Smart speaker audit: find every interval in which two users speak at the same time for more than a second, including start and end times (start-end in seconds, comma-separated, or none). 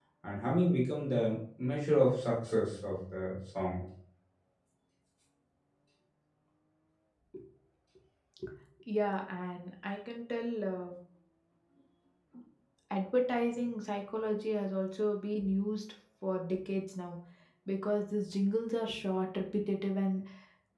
none